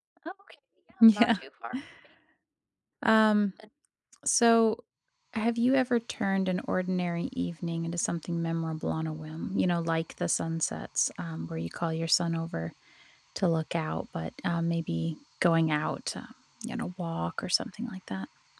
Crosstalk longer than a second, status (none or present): none